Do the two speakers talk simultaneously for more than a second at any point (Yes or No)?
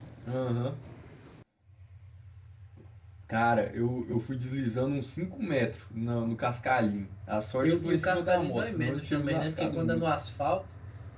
Yes